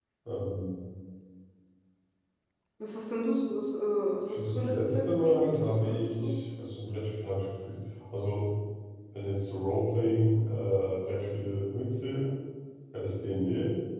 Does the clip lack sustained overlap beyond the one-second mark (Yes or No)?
No